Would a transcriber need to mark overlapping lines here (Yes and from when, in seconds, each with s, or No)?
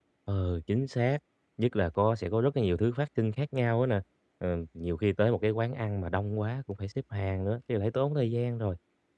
No